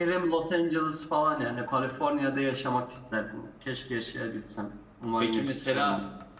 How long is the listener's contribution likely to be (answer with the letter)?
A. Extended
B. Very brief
A